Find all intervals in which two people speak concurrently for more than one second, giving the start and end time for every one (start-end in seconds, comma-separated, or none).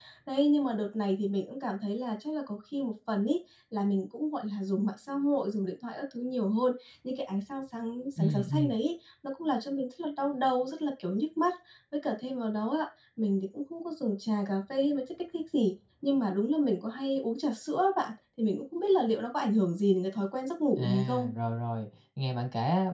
none